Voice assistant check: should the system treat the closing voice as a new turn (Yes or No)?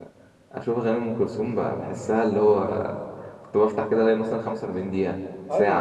Yes